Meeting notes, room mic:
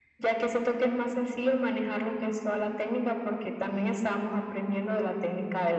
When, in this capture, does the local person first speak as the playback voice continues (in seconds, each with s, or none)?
none